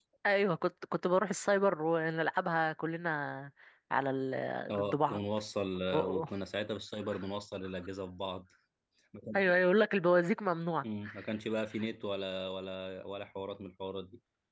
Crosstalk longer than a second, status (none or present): none